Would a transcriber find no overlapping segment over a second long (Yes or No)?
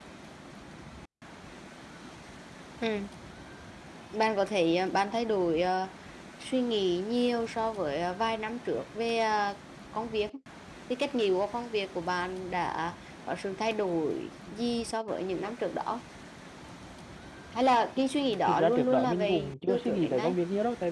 No